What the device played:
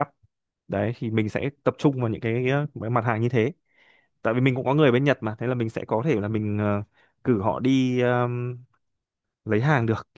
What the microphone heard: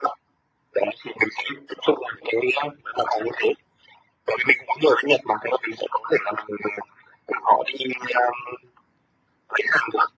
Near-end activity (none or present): none